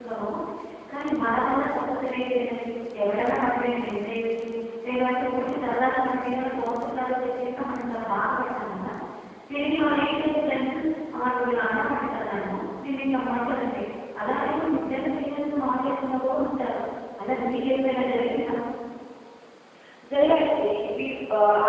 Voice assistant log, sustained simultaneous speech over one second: none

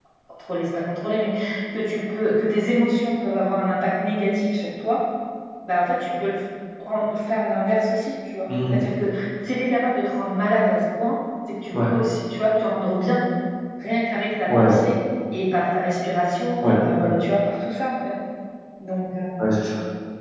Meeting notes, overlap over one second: none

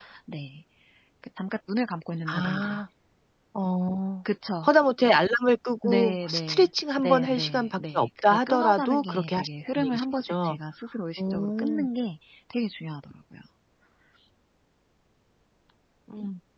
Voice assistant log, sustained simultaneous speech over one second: present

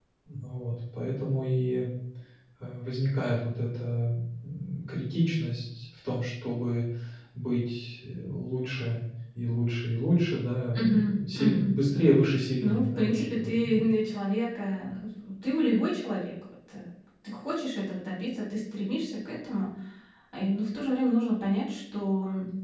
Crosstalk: present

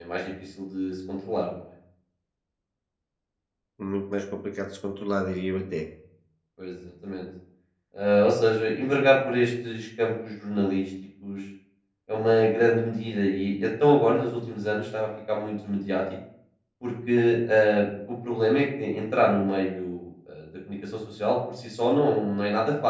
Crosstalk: none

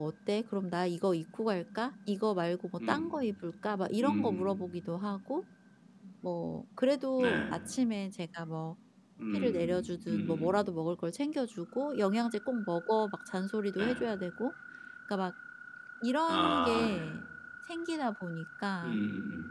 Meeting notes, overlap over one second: present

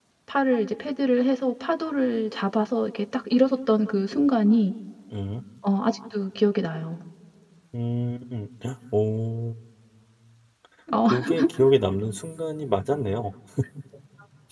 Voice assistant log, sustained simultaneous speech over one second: none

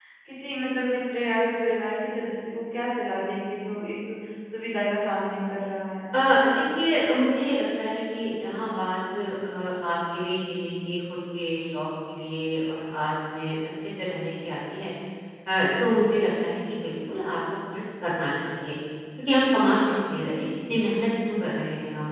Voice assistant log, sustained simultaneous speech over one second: none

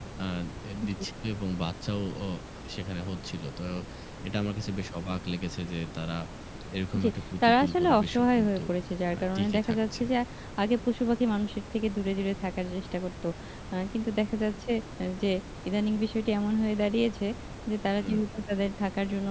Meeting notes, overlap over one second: present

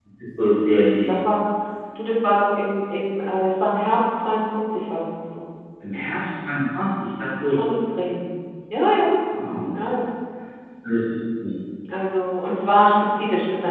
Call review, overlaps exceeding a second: none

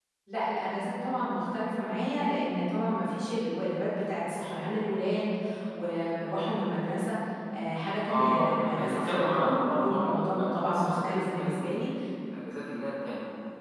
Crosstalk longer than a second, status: present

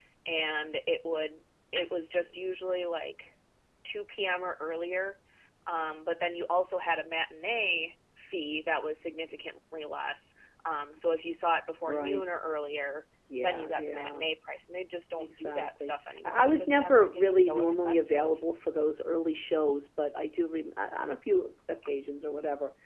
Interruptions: present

